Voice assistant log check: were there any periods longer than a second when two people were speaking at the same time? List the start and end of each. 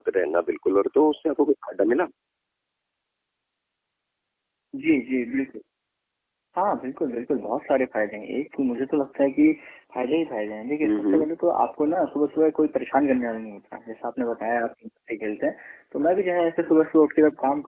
none

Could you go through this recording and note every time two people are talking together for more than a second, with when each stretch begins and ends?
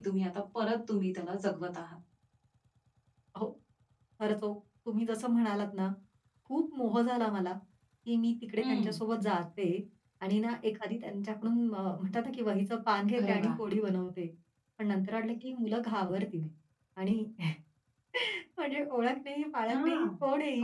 none

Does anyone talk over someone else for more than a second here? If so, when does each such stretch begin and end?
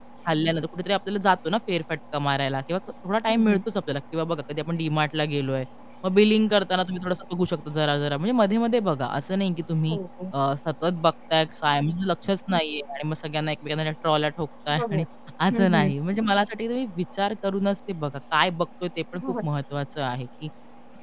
none

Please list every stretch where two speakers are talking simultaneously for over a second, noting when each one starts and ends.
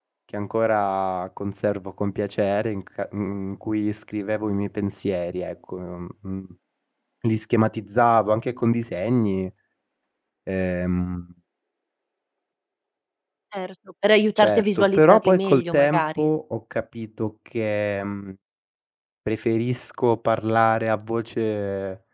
14.4-16.3

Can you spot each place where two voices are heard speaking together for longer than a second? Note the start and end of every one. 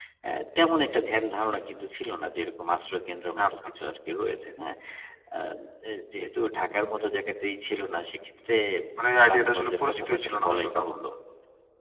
9.2-11.0

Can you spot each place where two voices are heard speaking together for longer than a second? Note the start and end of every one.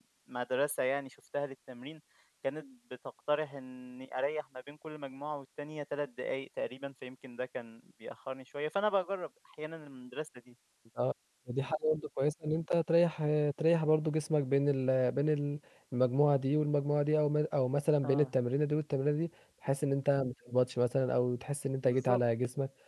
none

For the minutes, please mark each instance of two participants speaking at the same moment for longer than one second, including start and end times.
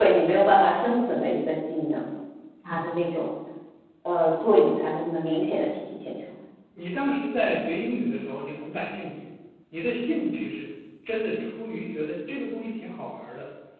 none

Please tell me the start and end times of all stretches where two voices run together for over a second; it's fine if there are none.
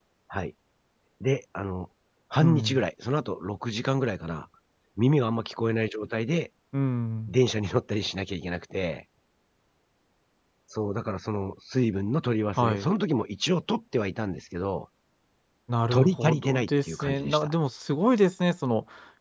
15.9-17.5

